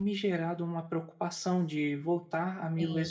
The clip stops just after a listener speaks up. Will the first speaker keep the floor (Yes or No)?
Yes